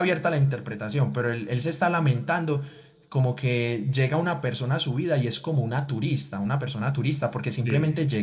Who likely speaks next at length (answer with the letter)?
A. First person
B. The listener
A